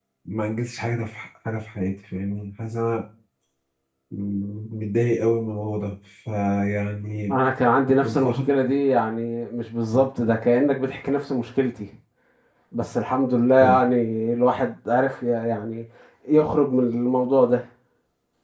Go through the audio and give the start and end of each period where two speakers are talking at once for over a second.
none

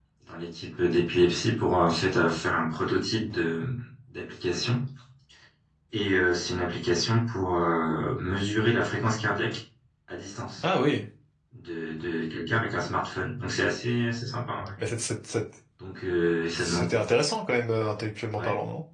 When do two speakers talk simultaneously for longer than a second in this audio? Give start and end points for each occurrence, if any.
none

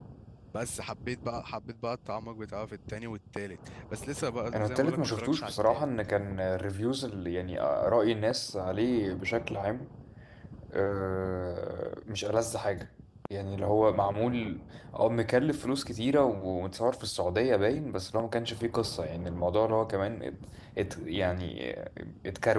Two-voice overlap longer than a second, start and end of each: 4.5-5.9

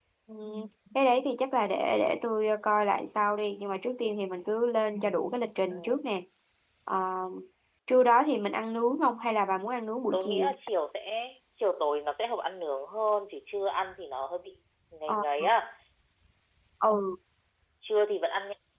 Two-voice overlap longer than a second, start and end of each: none

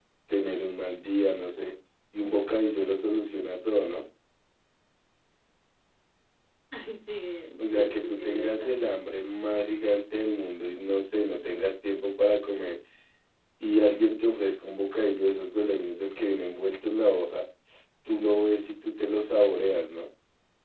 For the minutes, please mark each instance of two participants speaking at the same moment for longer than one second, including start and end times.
7.6-8.8

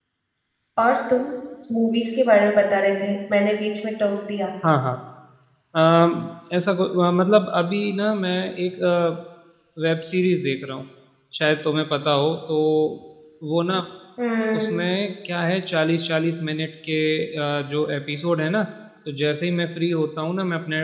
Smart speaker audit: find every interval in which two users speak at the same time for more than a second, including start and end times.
none

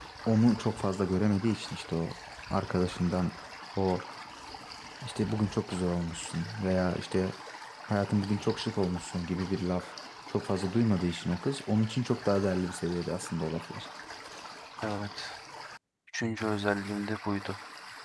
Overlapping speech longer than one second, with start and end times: none

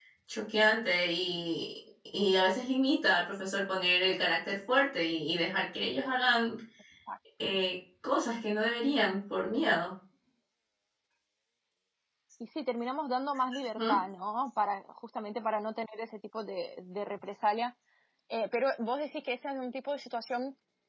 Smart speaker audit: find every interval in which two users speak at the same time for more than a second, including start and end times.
none

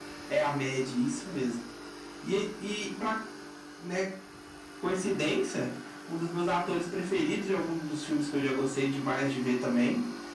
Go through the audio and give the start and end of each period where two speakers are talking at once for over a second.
none

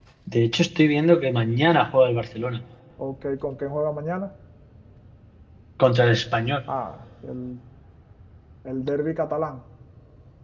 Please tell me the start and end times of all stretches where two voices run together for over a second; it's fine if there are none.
none

